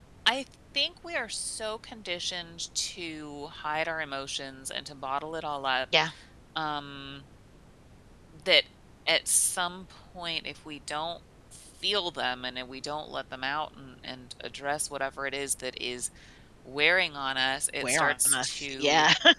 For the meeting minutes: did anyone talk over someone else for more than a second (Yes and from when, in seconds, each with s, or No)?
Yes, from 17.8 s